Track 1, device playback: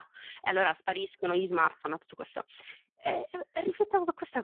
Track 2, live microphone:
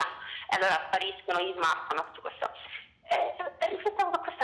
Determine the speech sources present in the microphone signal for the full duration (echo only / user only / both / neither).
echo only